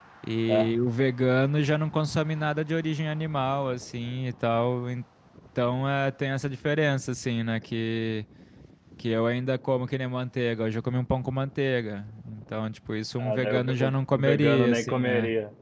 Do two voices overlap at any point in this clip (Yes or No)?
Yes